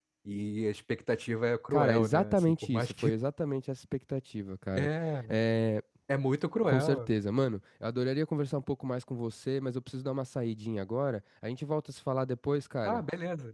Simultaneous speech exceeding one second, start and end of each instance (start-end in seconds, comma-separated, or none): 1.7-3.1